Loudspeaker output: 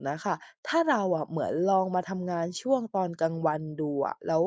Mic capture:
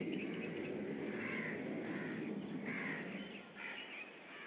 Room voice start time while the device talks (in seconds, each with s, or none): none